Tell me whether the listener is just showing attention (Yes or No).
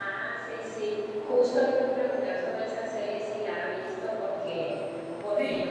Yes